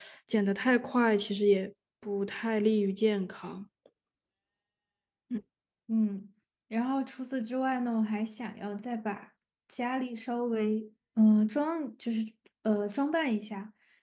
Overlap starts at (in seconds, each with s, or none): none